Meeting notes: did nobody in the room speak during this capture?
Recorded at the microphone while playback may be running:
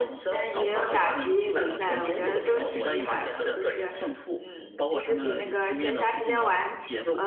No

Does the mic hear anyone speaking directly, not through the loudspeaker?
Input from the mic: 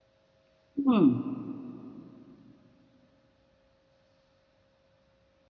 Yes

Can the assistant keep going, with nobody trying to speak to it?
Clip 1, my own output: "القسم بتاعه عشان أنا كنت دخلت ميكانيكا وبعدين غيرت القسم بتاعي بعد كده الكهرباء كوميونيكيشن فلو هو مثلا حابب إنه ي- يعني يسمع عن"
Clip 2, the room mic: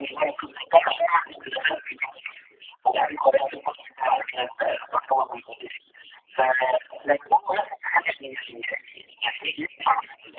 Yes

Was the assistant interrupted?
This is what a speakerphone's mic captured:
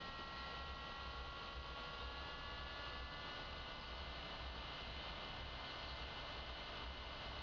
No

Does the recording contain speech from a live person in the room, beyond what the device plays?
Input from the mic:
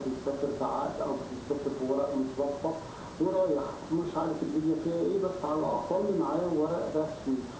No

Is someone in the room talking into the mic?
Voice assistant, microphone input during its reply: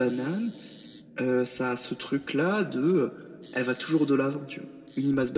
No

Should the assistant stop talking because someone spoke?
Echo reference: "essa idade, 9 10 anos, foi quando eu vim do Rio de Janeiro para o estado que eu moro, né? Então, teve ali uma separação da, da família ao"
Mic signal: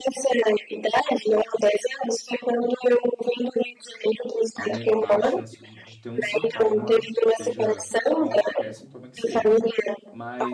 Yes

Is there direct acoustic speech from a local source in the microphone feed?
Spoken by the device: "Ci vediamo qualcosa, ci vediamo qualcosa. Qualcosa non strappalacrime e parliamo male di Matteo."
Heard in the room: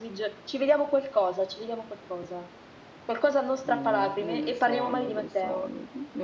Yes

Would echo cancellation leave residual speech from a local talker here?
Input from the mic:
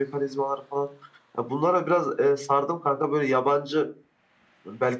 No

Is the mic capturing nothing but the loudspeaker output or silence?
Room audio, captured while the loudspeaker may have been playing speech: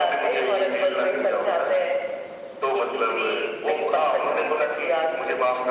Yes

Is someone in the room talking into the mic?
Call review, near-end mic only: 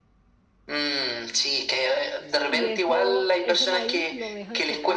Yes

